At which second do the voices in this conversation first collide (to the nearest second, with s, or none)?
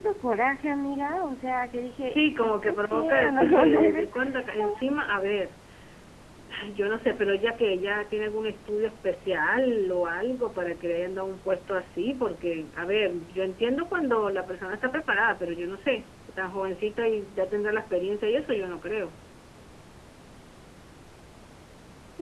2 s